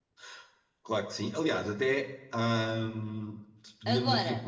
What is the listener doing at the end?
listening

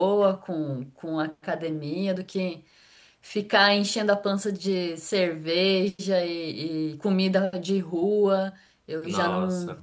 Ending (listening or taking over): listening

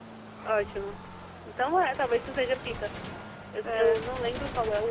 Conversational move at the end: listening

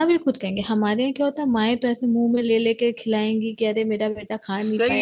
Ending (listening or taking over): taking over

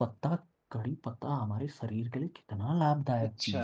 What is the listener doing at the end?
taking over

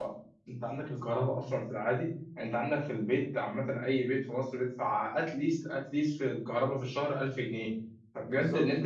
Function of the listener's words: listening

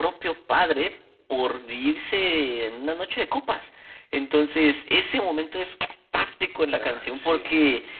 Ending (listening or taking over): listening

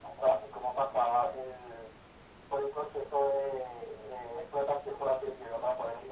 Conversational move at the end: taking over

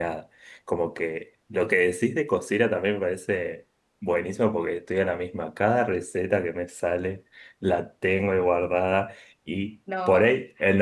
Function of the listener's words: listening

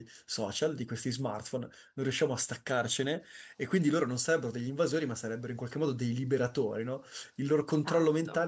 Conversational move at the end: listening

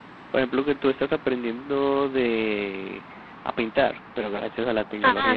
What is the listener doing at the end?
taking over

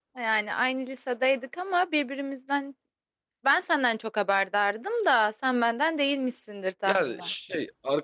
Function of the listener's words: taking over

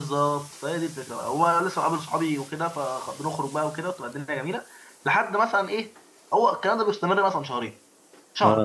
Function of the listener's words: listening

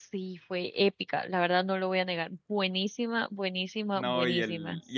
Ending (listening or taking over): taking over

